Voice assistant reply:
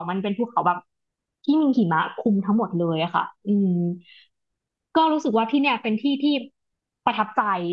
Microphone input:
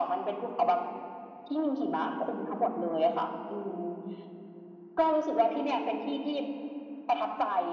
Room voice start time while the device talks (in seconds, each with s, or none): none